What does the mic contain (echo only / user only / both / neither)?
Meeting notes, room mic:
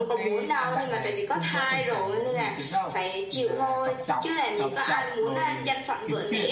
both